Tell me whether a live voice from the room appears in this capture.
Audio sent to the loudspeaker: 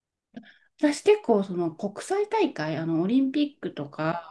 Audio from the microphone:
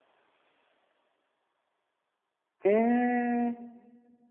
Yes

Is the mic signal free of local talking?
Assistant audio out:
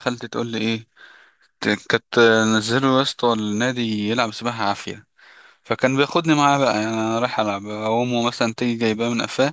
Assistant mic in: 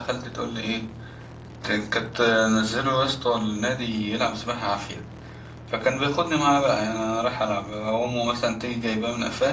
Yes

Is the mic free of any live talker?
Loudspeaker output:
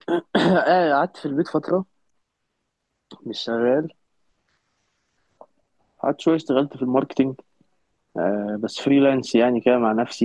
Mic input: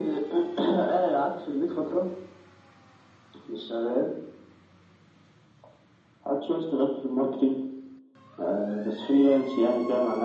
Yes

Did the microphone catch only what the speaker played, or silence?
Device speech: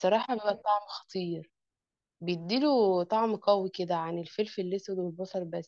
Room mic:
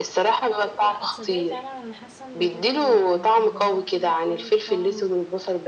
No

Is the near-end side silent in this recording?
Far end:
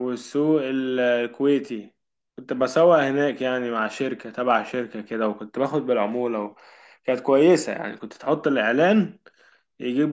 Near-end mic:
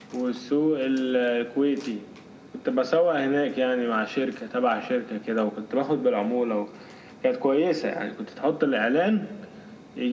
Yes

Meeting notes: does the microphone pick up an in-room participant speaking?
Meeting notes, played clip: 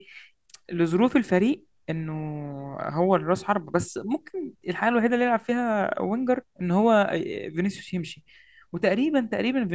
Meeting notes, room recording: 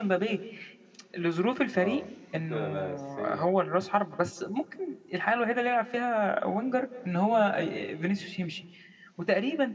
Yes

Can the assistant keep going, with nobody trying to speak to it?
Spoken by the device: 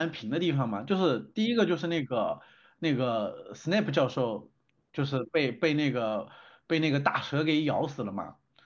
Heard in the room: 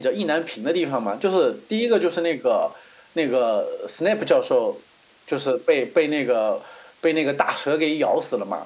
Yes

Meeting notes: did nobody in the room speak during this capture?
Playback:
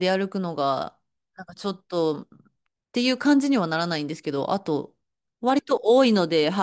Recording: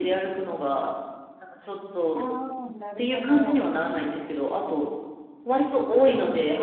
No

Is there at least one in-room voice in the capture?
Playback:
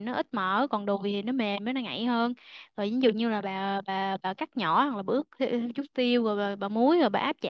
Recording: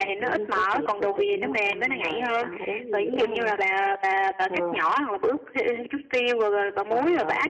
Yes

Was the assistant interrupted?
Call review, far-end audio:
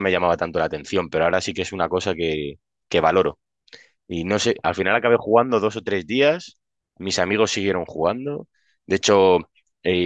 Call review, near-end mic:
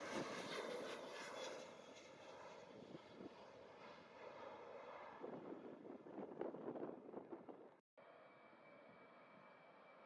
No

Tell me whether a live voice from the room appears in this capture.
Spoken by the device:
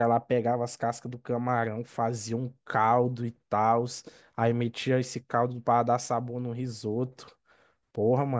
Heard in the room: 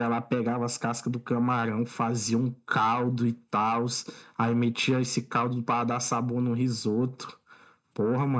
No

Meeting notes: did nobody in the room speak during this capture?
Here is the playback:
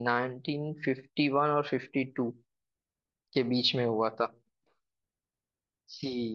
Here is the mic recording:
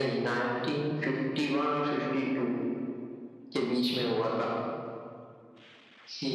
Yes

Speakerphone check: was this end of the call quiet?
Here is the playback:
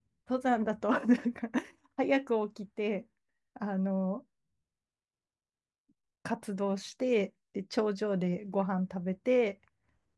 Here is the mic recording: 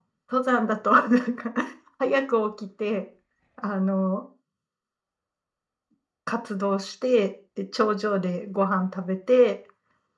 Yes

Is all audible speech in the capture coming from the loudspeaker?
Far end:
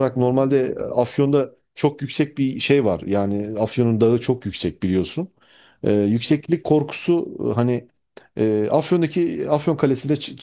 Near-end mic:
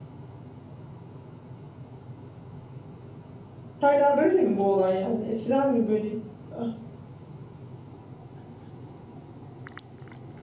No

